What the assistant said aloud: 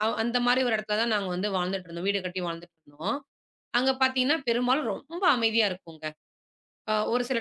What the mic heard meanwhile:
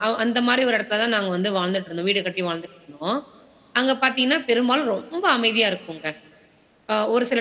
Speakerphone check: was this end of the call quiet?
Yes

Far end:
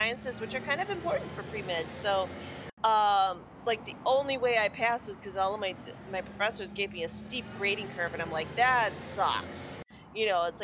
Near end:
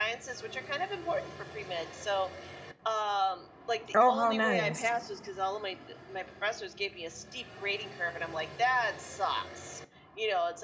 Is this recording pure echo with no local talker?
No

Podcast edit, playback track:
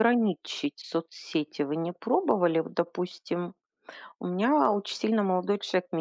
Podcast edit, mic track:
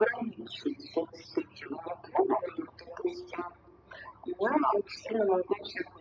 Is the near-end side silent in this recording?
Yes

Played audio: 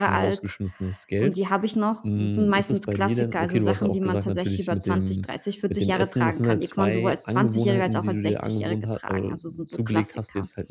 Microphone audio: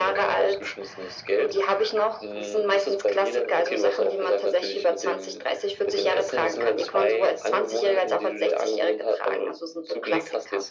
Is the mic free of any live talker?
Yes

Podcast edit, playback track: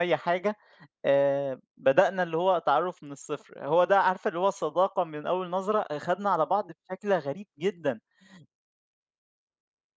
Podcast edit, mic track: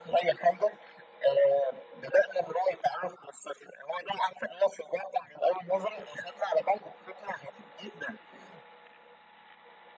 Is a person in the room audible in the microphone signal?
No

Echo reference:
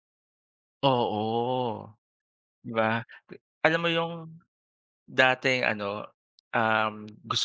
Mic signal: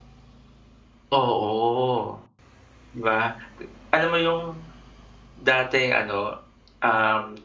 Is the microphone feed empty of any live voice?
Yes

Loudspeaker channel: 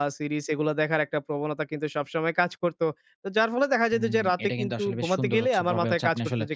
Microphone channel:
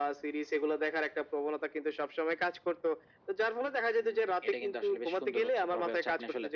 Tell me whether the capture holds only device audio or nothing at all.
Yes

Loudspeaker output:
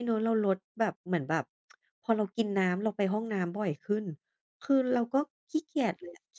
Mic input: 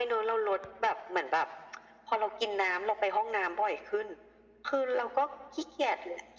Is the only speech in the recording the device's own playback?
Yes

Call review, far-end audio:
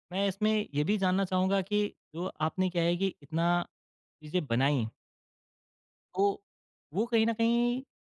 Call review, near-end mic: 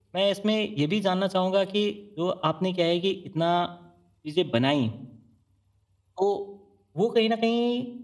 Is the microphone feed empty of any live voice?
Yes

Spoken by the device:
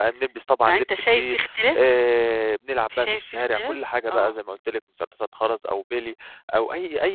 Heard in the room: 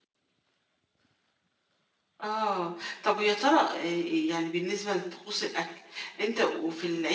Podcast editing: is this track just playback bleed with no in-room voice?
No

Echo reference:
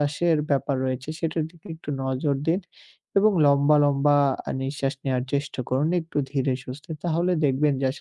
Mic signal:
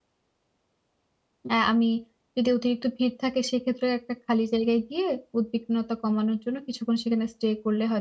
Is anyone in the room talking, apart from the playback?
Yes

